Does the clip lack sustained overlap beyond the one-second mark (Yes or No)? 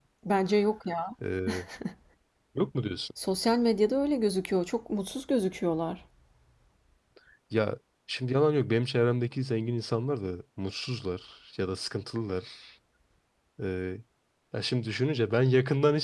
Yes